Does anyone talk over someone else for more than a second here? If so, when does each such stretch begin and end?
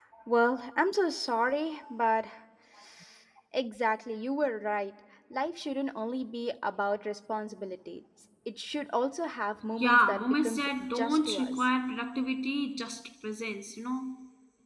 9.8-11.7

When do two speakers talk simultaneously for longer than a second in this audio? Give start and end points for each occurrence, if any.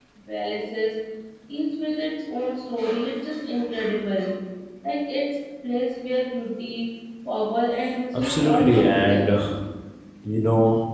8.1-9.4

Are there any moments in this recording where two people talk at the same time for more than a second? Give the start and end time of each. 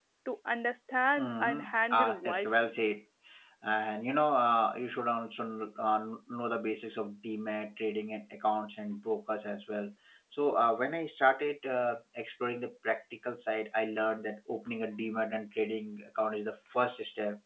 1.2-2.7

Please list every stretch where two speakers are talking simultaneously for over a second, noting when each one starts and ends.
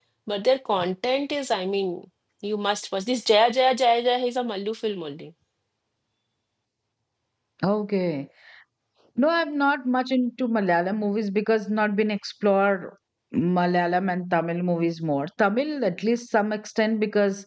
none

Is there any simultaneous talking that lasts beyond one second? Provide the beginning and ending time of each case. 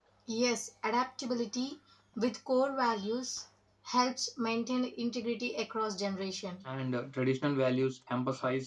none

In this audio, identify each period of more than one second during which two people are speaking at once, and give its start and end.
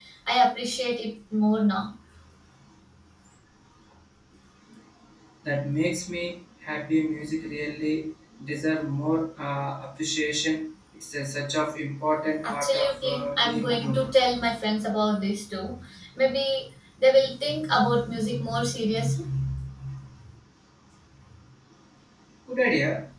12.4-14.1

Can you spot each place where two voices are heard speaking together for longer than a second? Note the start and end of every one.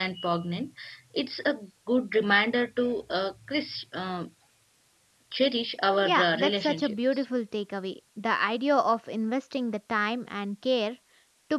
6.0-7.2

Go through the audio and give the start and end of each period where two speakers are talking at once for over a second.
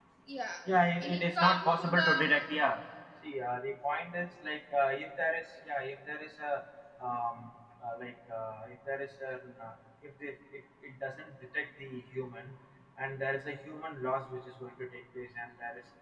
1.0-2.3

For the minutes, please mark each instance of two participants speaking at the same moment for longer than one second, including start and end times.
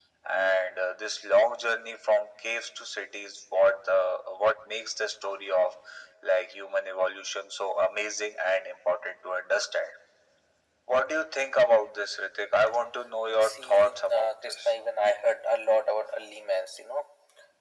13.4-14.7

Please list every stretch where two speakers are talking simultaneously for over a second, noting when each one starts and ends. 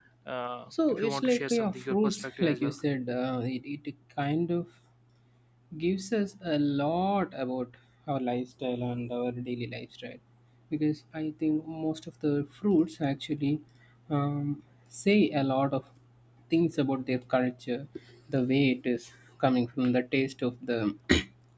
0.9-2.7

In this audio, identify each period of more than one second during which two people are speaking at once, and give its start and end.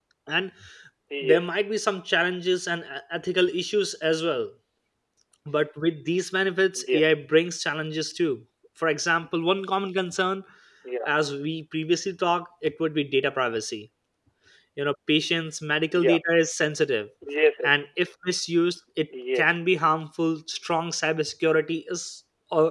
none

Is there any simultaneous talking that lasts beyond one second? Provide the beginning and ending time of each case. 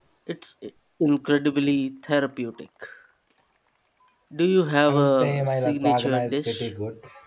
4.9-6.7

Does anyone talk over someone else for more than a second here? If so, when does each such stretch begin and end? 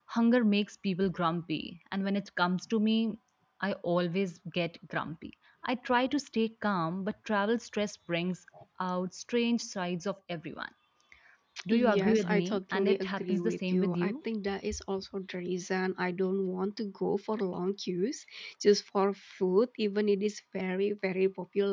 11.7-14.1

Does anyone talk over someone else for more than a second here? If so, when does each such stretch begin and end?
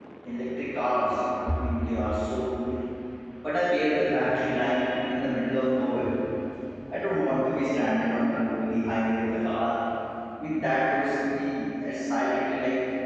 none

